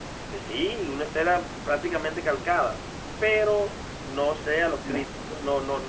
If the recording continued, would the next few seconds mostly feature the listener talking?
No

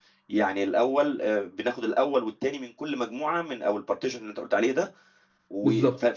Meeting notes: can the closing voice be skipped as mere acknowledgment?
Yes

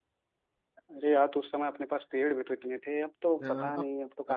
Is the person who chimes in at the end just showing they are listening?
No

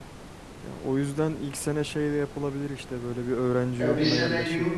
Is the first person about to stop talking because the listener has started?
Yes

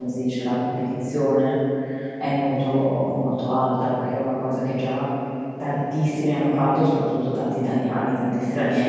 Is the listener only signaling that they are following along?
No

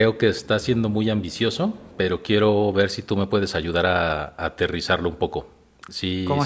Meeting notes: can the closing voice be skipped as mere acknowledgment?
No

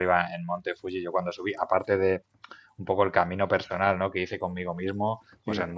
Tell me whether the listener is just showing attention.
Yes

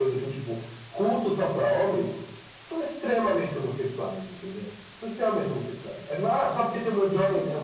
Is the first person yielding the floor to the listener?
No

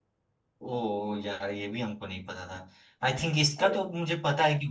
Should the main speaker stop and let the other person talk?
No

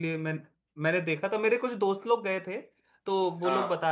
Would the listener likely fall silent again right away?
Yes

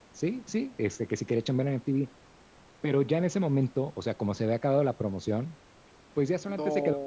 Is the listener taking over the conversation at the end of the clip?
No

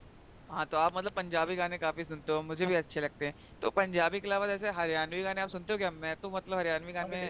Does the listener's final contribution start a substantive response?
No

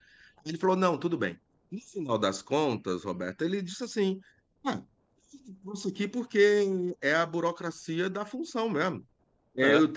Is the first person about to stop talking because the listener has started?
No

